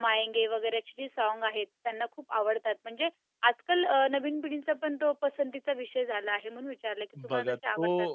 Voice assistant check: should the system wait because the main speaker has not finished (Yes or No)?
No